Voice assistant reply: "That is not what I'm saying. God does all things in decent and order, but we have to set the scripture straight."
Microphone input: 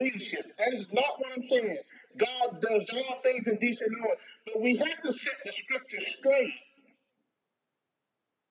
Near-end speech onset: none

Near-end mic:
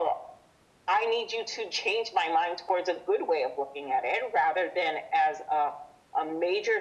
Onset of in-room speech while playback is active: none

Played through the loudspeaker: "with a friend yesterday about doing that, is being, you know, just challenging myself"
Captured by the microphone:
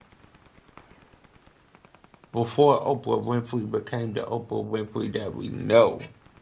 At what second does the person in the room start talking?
2 s

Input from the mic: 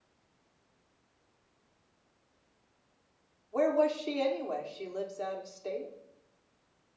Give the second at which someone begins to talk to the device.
3 s

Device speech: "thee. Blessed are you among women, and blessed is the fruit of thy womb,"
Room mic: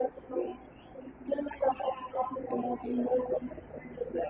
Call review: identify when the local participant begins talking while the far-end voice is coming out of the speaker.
none

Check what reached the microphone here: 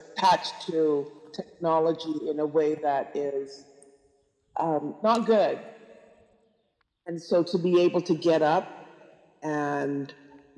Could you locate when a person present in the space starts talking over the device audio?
none

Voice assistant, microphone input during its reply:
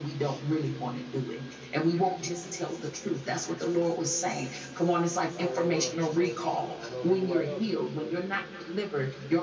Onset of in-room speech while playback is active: 5 s

